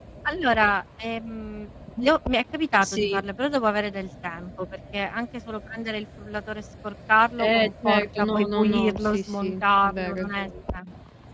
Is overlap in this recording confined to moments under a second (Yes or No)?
No